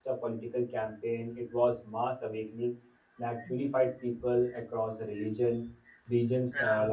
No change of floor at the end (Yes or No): Yes